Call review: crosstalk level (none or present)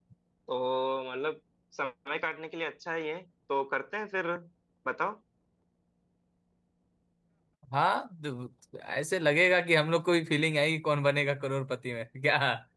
none